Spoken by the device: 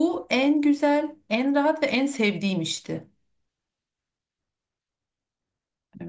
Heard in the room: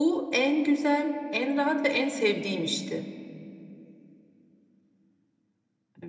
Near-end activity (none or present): none